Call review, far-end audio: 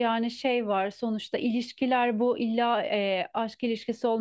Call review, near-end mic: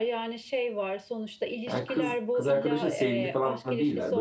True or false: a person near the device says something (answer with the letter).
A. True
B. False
A